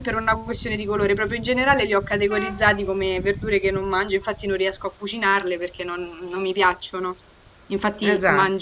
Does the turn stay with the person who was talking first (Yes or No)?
Yes